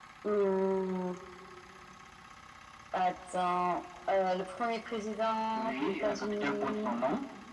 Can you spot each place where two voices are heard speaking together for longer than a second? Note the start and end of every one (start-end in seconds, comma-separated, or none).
5.5-6.9